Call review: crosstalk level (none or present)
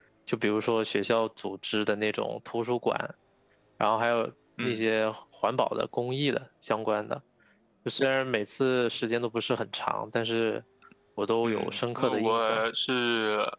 present